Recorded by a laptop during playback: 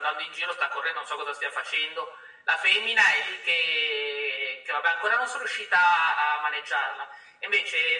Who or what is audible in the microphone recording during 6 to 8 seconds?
echo only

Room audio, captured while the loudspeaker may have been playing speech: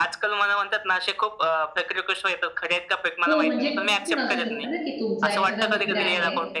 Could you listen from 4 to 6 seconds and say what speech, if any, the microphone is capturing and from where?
both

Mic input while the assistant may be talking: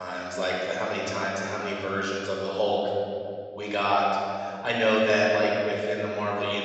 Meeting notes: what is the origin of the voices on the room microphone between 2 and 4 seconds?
user only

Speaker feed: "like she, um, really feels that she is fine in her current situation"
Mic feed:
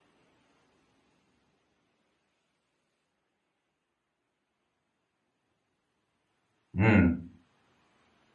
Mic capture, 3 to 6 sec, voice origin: neither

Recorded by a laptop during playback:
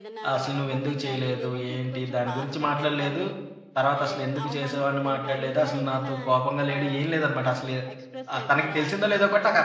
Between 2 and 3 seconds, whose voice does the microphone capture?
both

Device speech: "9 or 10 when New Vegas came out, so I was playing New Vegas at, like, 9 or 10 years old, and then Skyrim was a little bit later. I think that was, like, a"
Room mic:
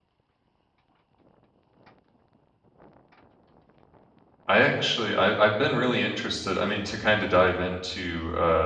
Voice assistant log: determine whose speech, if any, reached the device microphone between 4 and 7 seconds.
user only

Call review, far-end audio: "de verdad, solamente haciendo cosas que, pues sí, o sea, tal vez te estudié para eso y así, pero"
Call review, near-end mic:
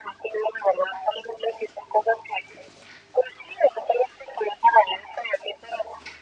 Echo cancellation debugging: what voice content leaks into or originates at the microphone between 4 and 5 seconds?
echo only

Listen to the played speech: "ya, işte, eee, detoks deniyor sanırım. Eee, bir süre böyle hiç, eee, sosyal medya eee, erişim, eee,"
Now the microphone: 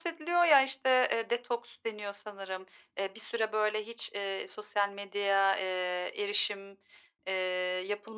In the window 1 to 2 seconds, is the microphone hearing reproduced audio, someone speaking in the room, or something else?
echo only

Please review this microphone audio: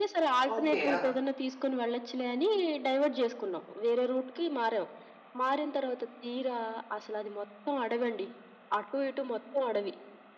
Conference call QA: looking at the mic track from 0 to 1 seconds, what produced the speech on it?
both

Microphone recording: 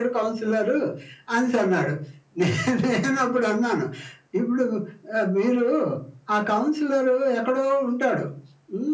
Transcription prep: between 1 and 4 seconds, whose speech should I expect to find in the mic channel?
echo only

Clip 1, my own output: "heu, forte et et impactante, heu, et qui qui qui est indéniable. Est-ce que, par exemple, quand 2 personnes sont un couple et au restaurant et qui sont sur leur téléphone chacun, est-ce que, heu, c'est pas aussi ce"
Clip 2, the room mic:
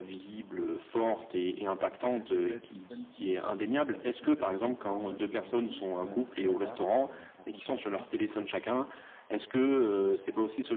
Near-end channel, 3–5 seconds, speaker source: both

